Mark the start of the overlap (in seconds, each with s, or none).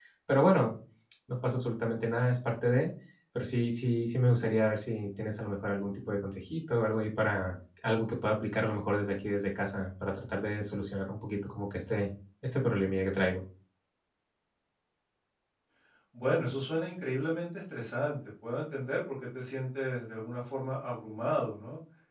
none